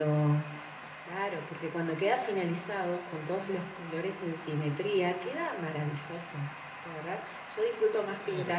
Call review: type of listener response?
listening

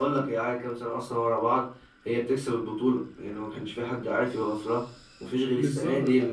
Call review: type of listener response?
listening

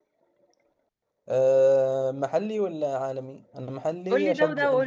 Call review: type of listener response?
taking over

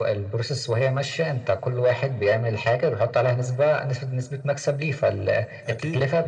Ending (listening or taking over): listening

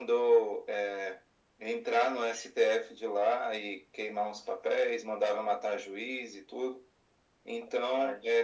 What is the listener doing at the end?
listening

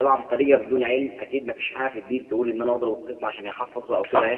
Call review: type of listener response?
taking over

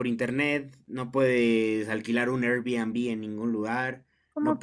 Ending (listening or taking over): listening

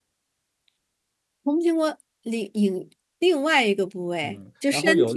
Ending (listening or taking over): taking over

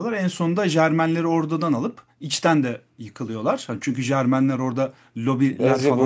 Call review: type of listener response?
taking over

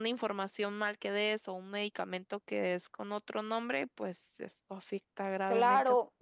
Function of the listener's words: taking over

